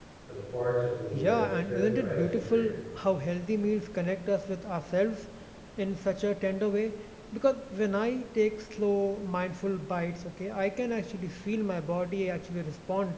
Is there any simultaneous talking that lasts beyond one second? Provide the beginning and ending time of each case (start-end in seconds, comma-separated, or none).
1.1-2.7